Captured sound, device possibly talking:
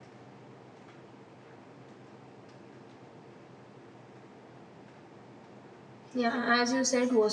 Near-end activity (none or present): present